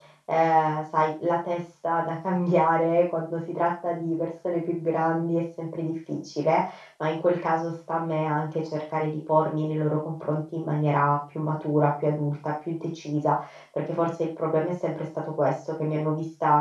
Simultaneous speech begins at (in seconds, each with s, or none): none